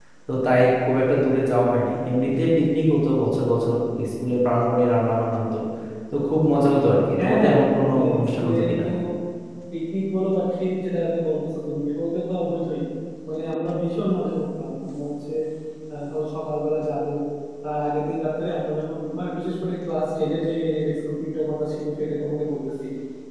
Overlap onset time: 7.2 s

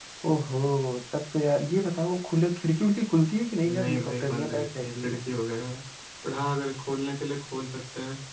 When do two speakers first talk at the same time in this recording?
3.6 s

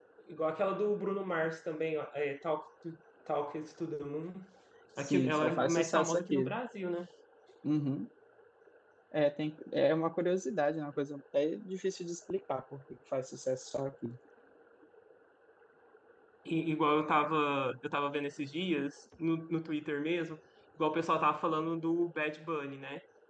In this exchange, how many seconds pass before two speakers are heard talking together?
5.0 s

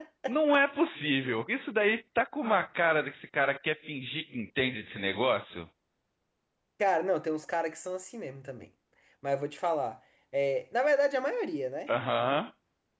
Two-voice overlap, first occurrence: none

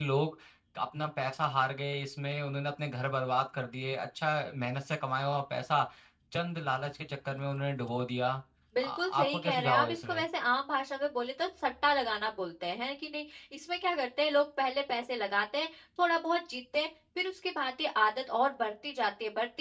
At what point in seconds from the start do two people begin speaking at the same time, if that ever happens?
8.8 s

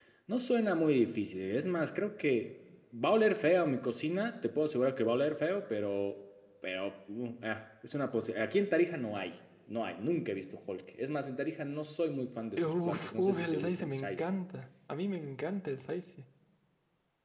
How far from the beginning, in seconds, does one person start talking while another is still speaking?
12.6 s

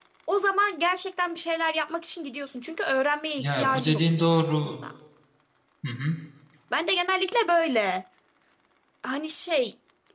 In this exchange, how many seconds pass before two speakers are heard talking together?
3.4 s

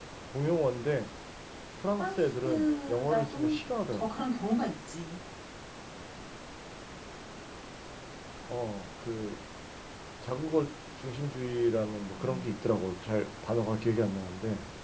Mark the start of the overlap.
2.0 s

